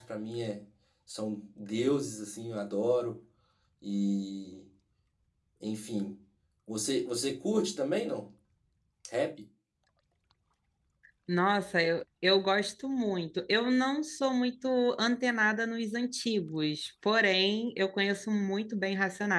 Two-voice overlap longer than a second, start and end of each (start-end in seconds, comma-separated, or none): none